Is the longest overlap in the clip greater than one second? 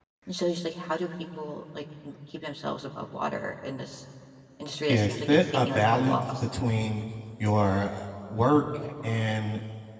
Yes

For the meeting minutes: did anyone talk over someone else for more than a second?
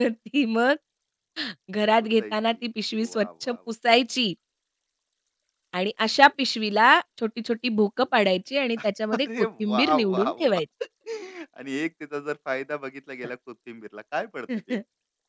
Yes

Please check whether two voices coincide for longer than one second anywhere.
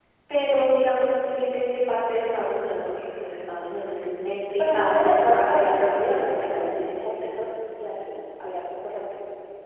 Yes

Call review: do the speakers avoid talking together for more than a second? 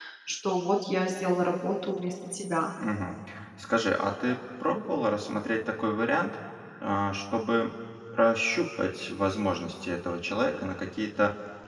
Yes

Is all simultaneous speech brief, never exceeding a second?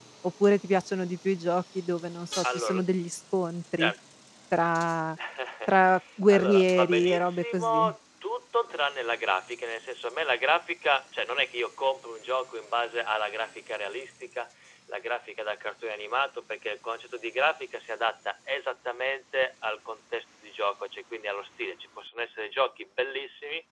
No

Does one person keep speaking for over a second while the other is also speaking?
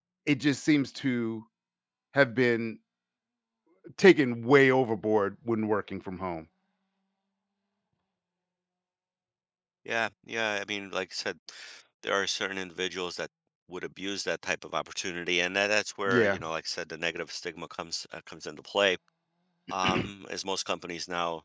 No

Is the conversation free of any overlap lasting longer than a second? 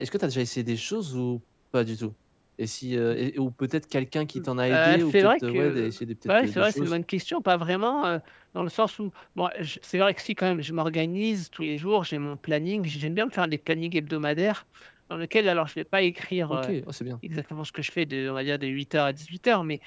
No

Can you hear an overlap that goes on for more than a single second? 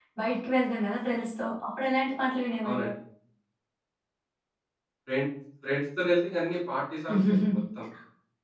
No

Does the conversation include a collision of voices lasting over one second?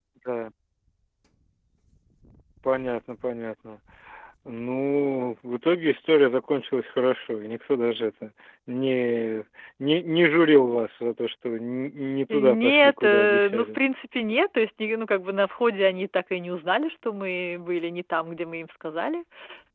Yes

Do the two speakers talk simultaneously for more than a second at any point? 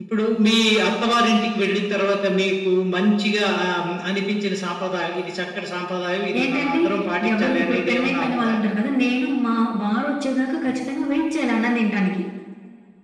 Yes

